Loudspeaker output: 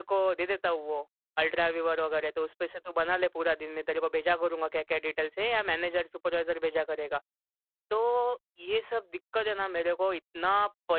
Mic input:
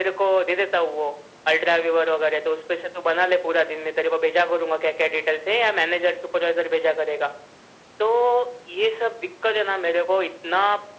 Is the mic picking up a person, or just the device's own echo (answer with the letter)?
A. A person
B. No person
B